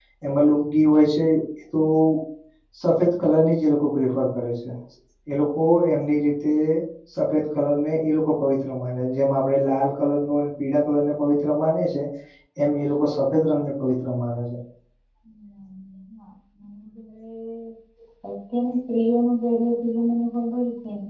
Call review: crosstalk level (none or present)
none